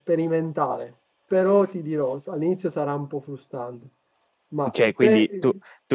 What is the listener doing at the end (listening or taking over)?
taking over